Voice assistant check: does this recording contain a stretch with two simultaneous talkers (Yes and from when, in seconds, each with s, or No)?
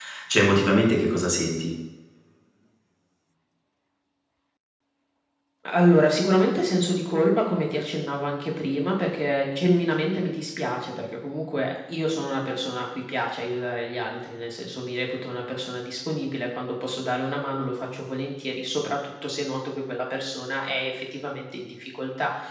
No